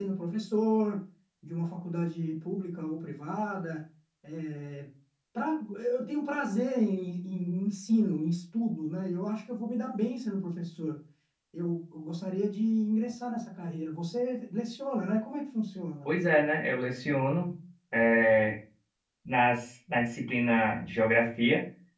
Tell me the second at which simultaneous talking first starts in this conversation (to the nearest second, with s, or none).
none